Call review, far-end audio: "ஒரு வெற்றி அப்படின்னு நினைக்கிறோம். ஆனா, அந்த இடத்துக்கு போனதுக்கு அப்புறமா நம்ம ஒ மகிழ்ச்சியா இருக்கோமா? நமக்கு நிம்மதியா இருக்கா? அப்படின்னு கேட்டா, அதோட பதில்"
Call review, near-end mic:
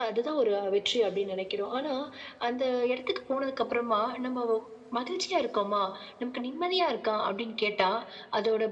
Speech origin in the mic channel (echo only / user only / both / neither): echo only